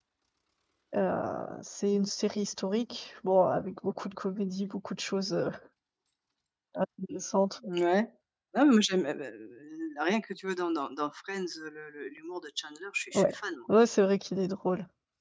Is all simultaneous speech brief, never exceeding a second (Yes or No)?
Yes